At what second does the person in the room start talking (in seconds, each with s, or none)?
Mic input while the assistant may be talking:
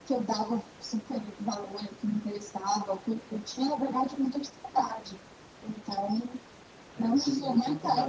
6.9 s